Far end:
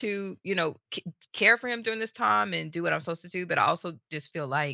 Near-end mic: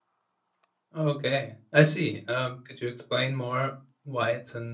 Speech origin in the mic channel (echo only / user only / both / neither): user only